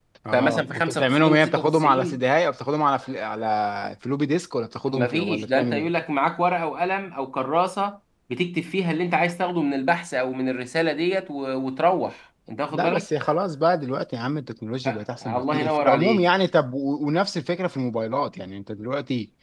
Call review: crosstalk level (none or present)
present